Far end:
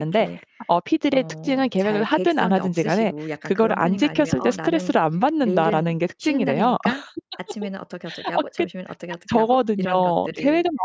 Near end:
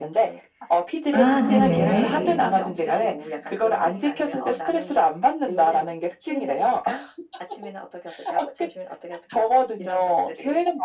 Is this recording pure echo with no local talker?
No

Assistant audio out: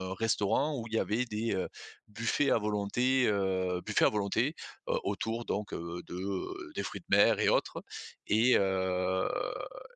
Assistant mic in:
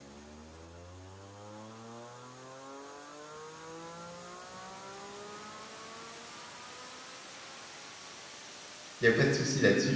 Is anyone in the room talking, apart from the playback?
Yes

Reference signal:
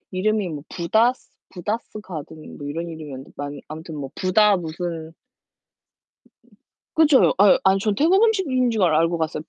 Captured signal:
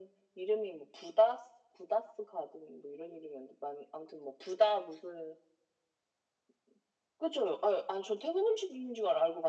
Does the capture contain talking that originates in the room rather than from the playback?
No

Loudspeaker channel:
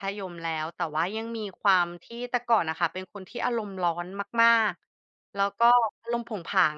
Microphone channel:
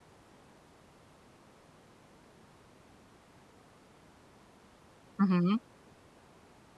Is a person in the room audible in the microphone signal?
Yes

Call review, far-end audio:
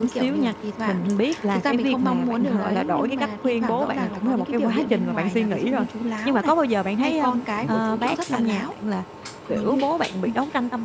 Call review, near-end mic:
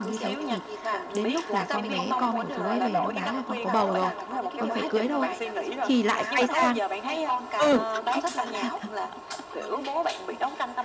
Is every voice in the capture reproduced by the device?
No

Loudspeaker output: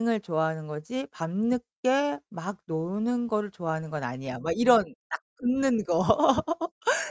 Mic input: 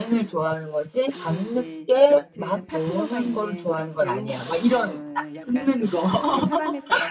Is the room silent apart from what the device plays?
No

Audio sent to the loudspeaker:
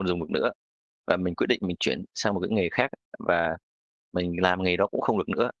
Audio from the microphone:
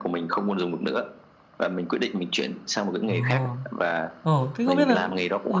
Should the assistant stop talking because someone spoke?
Yes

